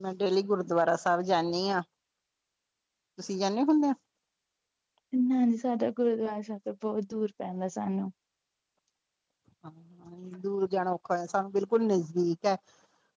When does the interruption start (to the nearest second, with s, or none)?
none